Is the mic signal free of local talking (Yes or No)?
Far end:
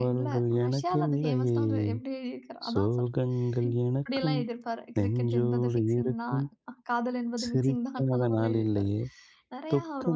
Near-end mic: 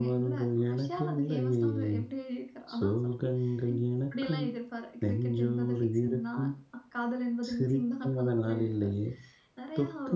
Yes